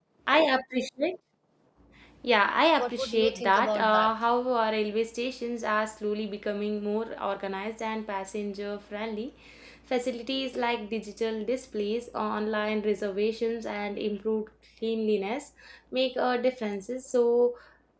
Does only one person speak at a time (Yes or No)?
No